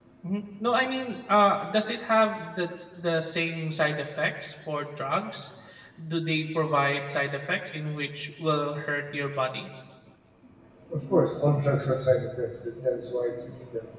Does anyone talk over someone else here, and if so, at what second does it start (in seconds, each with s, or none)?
none